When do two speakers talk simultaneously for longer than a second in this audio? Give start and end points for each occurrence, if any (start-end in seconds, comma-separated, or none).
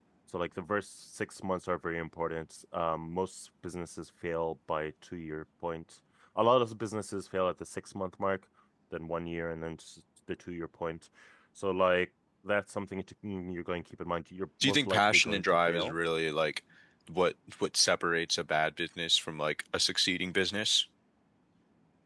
14.6-15.9